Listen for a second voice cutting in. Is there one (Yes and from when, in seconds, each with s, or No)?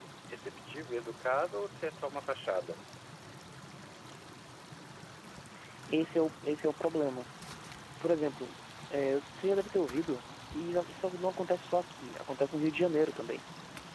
No